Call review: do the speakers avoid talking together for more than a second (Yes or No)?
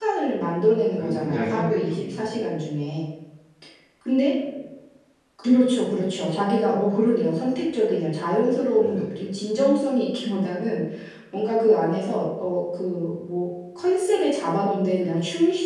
No